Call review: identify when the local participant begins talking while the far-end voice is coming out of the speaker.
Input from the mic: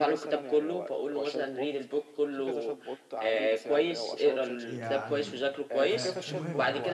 4.7 s

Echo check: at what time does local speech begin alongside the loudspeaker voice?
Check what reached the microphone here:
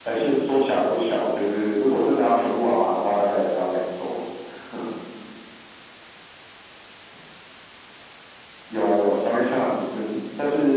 none

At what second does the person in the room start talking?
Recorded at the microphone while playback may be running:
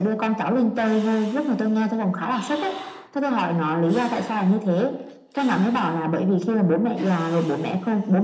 none

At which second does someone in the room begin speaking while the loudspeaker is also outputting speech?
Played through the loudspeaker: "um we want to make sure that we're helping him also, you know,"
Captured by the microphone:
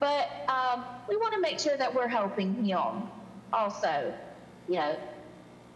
none

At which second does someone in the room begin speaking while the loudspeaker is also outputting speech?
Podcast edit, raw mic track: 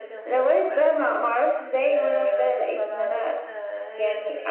none

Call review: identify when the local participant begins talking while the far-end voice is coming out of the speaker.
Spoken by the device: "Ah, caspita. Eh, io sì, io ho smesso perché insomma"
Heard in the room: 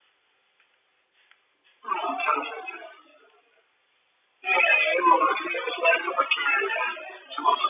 none

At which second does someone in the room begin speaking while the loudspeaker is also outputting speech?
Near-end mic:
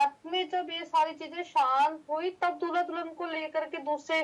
none

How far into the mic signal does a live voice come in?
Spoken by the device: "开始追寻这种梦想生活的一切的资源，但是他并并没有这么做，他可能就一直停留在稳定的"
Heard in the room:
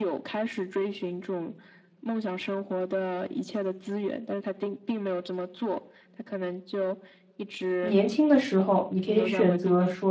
7.8 s

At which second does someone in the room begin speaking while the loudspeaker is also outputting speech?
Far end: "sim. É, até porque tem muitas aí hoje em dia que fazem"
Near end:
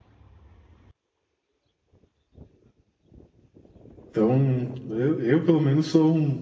4.1 s

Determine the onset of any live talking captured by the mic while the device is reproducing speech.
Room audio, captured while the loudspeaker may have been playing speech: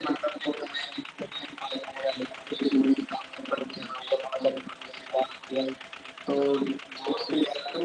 none

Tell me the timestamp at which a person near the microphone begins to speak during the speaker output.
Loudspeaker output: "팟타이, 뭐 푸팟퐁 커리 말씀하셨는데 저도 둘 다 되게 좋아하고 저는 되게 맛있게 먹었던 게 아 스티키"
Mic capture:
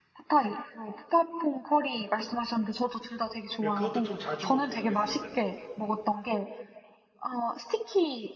3.6 s

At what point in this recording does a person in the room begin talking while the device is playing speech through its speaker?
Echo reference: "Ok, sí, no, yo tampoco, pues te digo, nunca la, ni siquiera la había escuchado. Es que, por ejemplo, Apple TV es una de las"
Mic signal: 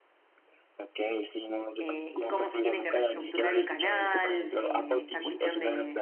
1.8 s

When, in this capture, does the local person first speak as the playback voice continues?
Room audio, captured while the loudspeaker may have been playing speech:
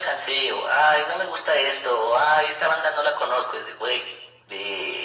none

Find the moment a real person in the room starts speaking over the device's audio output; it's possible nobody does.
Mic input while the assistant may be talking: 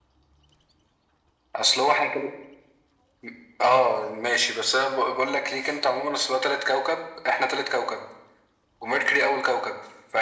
none

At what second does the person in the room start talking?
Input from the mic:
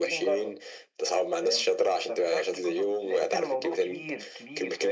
none

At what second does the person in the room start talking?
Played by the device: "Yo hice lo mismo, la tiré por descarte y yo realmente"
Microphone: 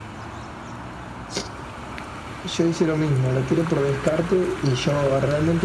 none

